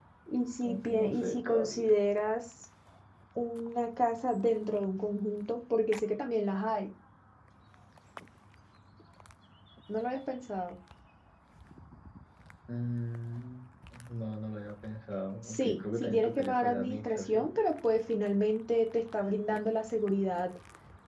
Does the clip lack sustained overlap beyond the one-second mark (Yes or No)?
No